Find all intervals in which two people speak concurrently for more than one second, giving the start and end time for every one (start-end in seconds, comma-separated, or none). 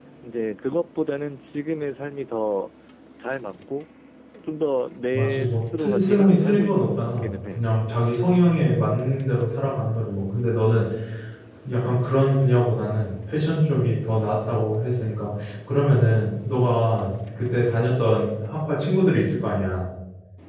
5.1-7.6